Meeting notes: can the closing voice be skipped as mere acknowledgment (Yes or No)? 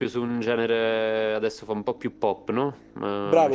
No